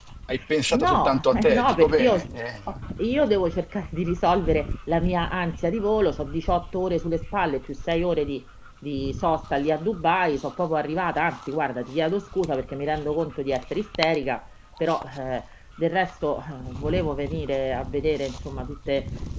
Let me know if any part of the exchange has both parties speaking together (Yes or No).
Yes